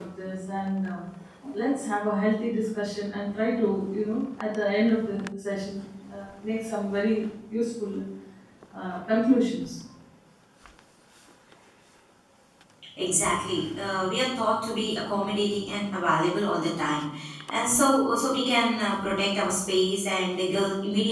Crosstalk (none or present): none